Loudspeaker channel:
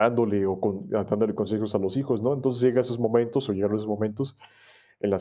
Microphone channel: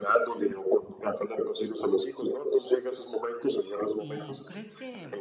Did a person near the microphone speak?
Yes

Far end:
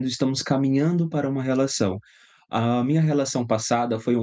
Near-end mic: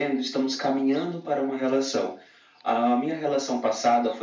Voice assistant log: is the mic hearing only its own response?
Yes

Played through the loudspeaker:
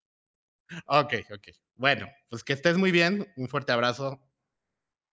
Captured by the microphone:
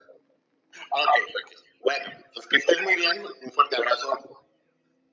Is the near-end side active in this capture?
No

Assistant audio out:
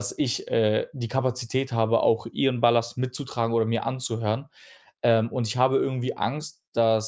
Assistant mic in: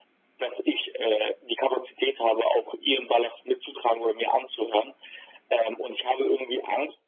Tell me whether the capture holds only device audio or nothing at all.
Yes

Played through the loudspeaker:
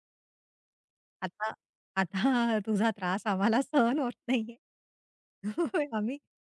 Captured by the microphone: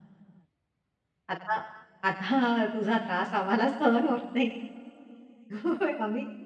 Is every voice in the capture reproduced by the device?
Yes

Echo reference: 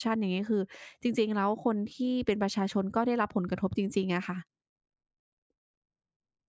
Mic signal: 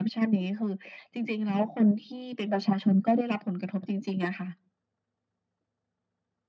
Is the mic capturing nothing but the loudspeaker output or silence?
Yes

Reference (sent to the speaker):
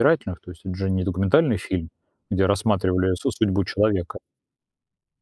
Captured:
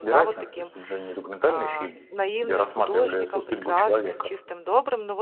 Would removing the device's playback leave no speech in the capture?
No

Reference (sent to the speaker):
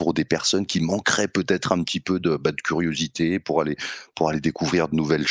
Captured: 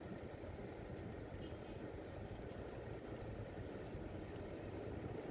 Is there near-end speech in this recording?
No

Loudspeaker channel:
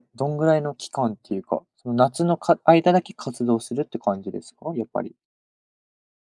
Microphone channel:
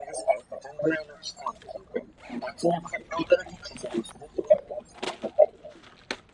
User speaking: No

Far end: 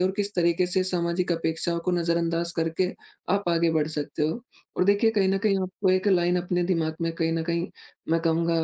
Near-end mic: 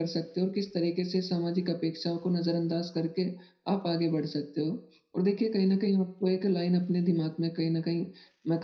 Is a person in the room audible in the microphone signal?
No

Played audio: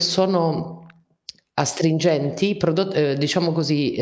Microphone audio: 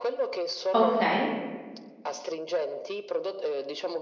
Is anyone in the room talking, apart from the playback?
Yes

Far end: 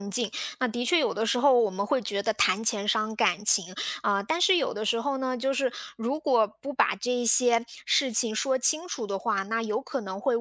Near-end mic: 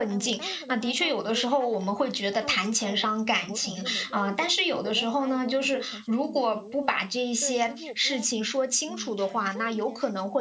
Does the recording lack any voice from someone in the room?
No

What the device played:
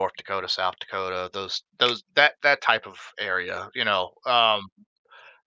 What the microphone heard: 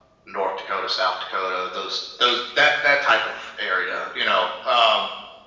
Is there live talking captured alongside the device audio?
No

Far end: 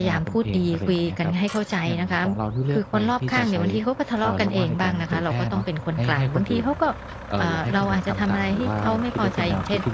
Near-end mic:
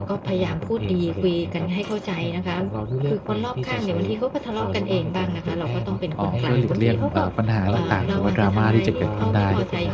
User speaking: Yes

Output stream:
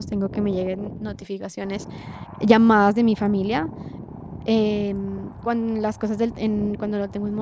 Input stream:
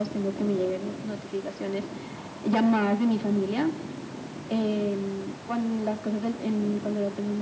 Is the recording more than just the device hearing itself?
No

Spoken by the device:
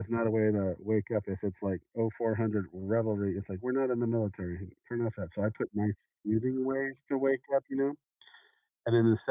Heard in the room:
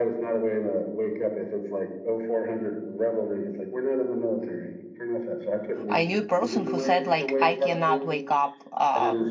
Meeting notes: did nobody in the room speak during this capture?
No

